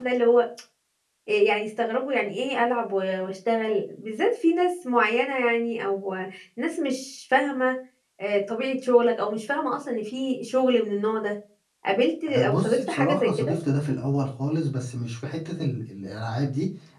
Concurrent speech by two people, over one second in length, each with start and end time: 12.3-13.5

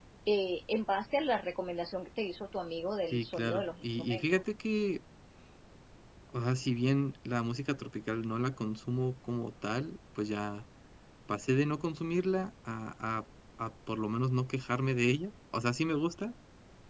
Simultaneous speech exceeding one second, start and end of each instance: 3.1-4.4

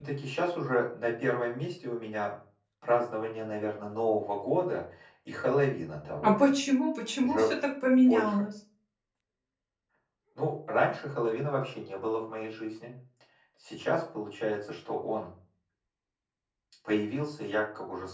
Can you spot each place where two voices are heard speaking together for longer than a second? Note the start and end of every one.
none

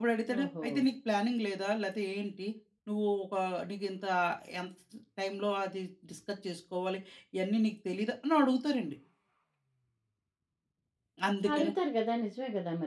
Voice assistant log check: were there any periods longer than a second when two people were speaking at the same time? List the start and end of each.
none

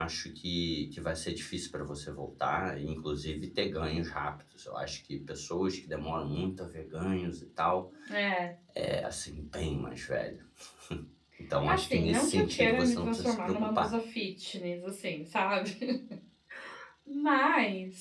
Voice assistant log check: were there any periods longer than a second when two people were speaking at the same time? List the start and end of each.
11.7-13.9

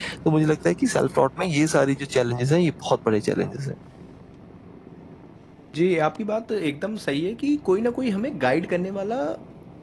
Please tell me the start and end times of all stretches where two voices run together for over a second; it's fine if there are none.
none

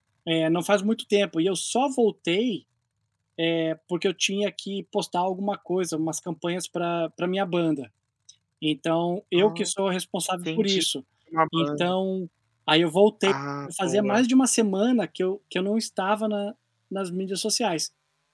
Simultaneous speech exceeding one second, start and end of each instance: none

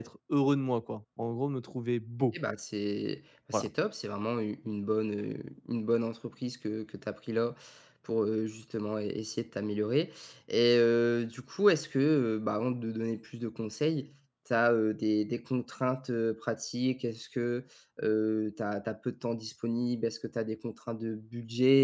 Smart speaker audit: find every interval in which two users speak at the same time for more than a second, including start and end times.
none

